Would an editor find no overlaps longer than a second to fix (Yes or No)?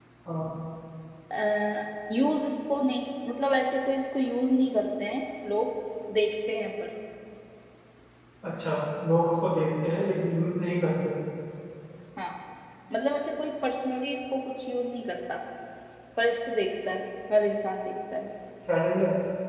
Yes